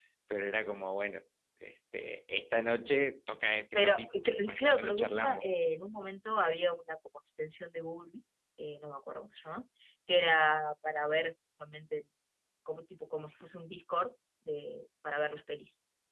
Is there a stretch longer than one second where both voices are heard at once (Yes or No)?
Yes